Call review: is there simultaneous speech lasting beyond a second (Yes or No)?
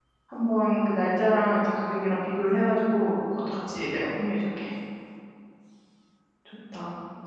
No